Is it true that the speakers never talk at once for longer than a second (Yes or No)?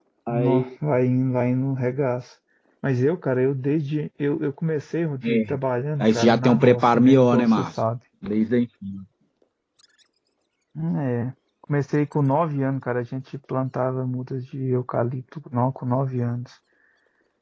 No